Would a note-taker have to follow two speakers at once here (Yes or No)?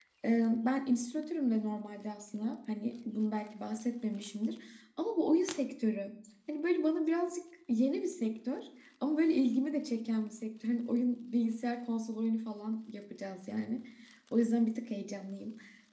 No